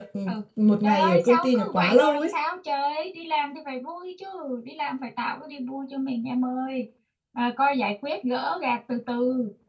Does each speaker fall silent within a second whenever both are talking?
No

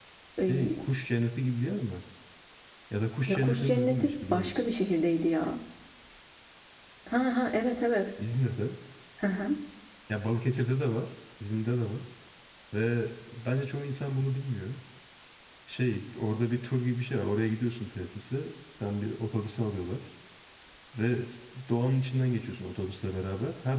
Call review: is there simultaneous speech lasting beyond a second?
Yes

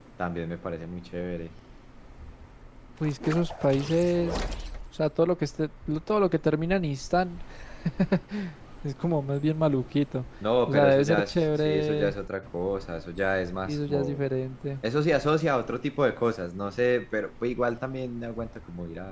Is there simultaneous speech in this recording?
Yes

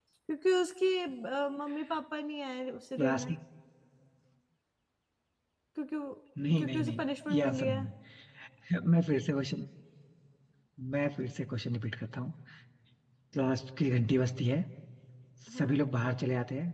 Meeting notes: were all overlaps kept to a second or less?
No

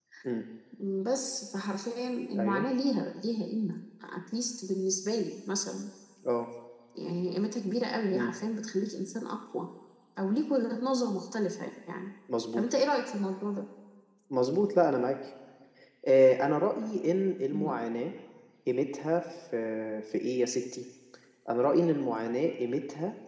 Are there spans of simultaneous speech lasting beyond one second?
No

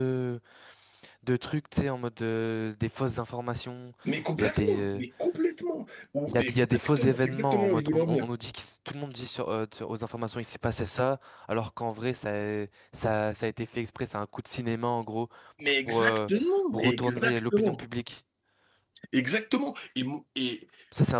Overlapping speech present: Yes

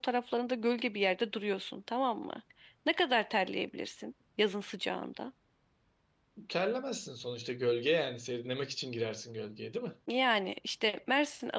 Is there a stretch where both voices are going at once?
No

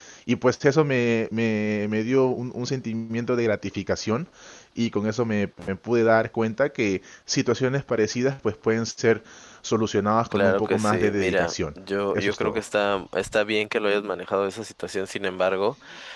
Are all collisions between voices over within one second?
No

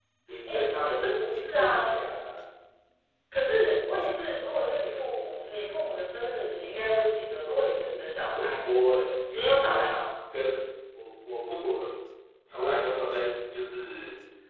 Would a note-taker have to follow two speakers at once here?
Yes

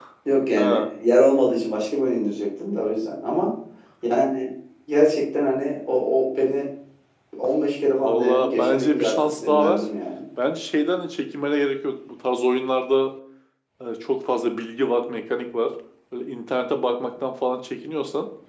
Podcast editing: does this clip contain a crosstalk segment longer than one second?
Yes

